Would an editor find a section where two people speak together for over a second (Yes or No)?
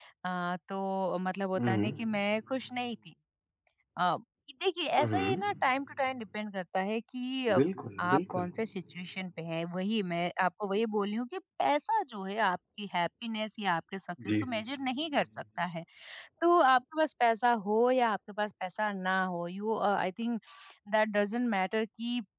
No